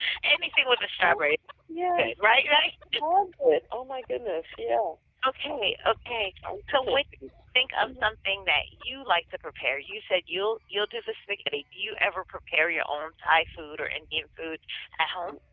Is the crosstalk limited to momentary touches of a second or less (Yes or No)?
Yes